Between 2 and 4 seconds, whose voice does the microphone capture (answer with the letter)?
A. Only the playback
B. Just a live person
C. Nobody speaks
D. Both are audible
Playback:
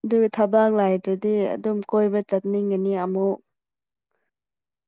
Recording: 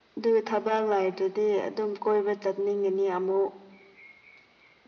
A